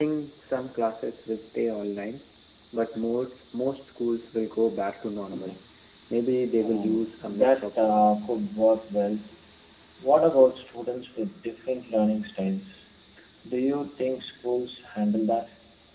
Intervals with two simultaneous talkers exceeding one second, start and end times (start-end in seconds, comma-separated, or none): 6.6-8.0